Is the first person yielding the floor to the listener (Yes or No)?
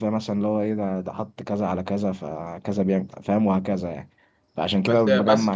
Yes